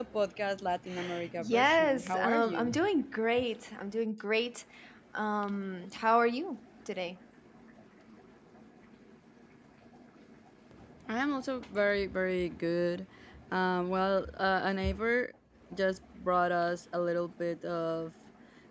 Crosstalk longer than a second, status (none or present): present